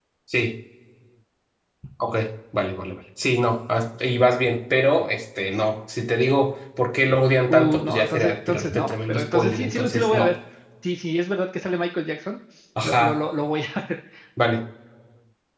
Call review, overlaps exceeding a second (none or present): present